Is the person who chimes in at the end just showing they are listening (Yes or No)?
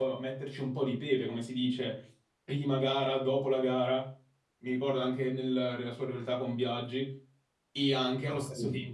Yes